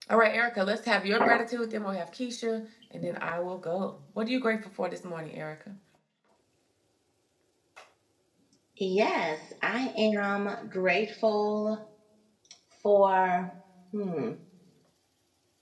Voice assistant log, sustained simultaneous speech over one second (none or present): none